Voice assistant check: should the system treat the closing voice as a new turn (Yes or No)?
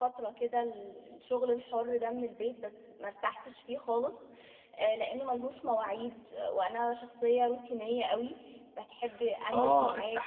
Yes